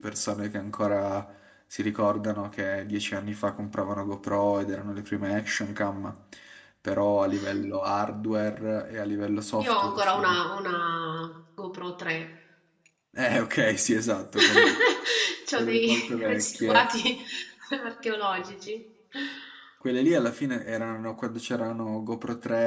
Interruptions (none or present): present